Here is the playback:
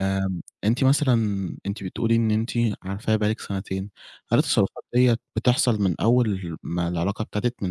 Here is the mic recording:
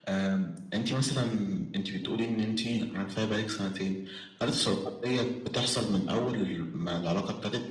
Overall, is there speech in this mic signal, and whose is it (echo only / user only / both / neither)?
echo only